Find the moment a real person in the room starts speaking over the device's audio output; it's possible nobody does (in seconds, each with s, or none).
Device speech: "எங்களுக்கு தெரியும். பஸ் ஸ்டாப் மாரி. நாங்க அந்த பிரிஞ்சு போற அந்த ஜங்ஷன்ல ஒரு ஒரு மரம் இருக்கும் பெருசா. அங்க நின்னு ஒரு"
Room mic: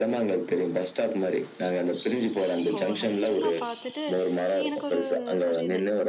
2.8 s